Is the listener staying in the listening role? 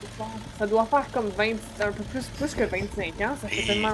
No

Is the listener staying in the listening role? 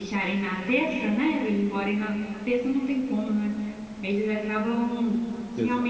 Yes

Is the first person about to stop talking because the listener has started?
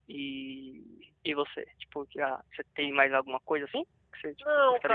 Yes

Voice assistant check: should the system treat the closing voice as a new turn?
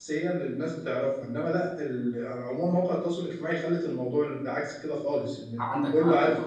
Yes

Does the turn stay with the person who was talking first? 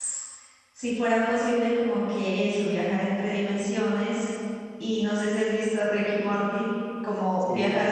Yes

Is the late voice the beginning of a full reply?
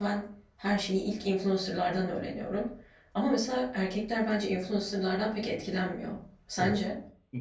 Yes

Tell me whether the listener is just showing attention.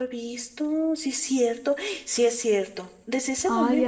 Yes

